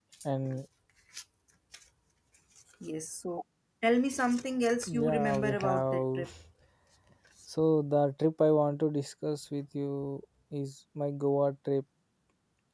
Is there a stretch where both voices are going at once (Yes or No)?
Yes